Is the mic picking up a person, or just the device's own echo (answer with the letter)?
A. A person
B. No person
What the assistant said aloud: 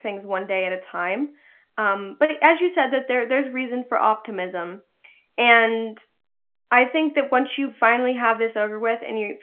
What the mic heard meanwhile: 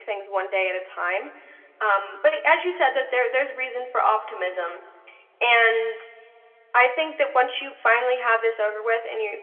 B